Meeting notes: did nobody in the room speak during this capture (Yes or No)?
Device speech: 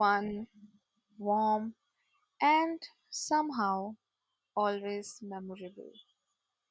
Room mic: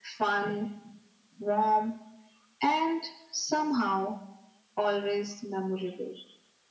Yes